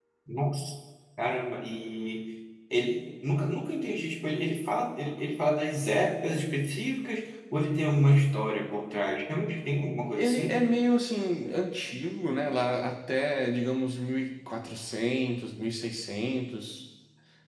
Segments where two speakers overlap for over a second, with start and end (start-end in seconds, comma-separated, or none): none